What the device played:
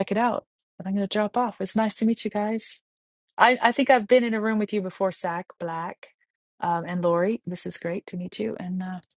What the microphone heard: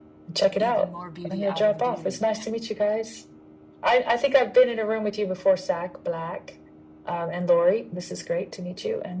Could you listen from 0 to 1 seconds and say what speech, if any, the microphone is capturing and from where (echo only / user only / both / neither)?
both